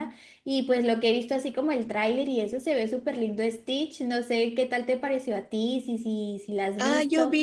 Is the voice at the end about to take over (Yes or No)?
Yes